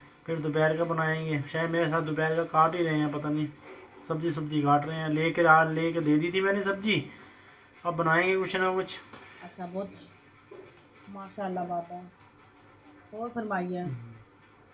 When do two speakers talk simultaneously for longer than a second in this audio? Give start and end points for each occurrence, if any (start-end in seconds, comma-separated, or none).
none